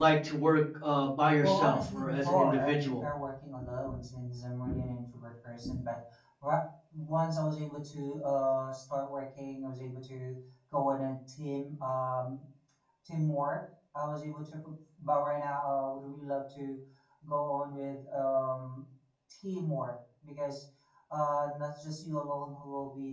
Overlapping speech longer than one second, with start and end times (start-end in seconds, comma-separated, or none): 1.4-3.0